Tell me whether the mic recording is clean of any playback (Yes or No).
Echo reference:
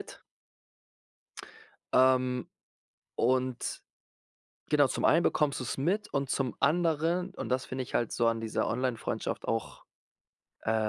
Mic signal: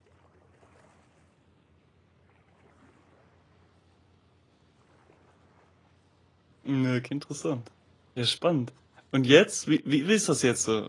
Yes